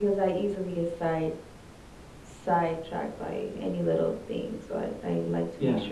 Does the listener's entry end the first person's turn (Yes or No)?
Yes